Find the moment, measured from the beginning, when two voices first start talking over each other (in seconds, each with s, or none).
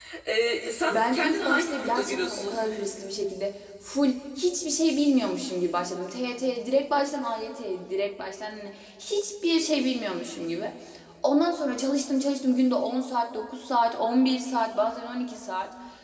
0.9 s